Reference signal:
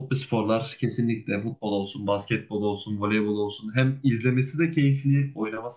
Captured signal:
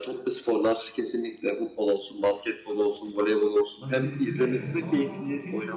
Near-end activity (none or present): present